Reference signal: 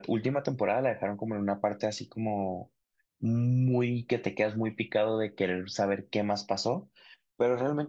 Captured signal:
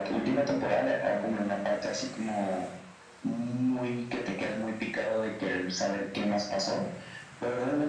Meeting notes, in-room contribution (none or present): none